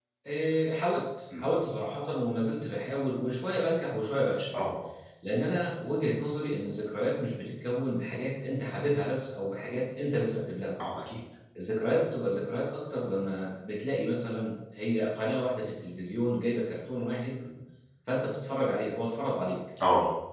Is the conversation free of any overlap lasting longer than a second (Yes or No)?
Yes